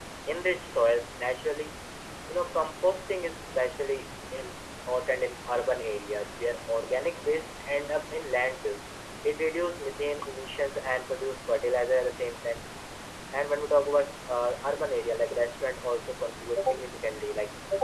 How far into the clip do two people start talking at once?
none

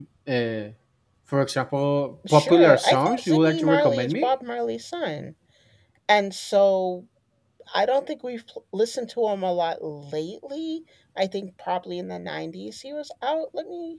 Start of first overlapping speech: 2.2 s

